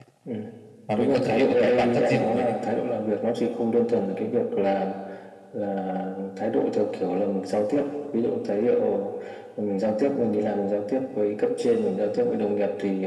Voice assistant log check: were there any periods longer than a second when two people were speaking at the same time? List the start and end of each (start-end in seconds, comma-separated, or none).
1.0-2.6